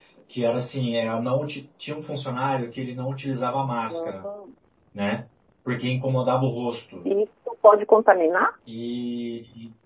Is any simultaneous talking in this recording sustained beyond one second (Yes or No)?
No